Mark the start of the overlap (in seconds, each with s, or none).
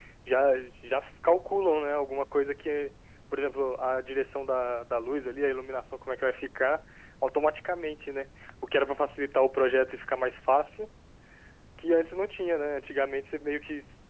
none